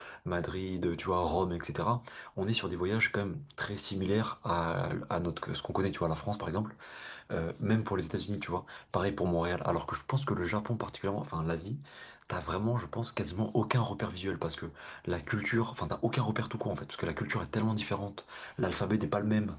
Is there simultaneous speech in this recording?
No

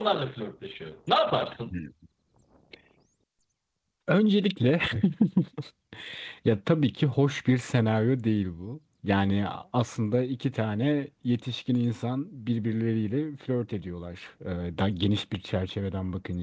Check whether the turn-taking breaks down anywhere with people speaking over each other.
No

